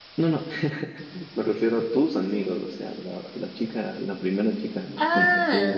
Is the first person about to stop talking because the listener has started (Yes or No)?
Yes